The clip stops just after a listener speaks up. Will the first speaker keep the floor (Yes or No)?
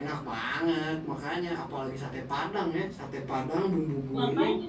Yes